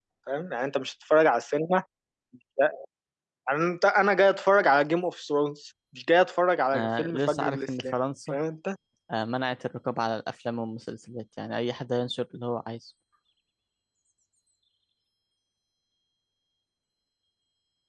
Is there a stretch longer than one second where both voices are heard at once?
Yes, from 6.7 s

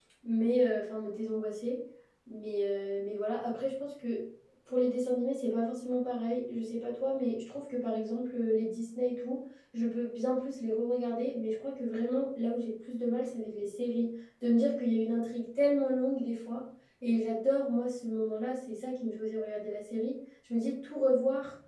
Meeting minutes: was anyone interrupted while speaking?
No

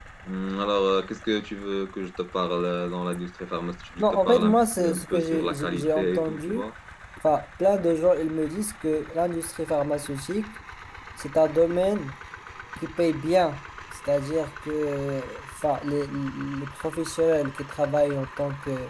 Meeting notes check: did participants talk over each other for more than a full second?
Yes, from 4.0 s

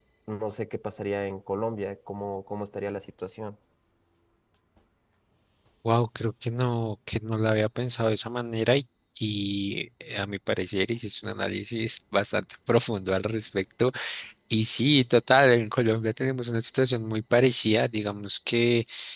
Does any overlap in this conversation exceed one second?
No

